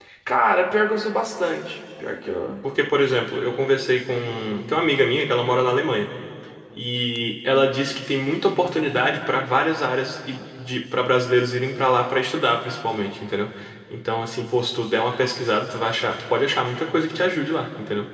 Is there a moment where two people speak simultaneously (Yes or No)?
No